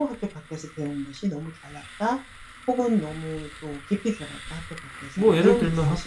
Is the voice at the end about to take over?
Yes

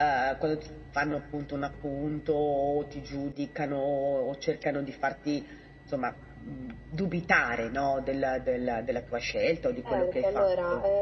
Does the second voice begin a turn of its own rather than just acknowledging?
Yes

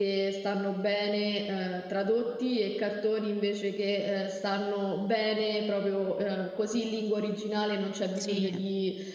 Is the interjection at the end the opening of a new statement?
No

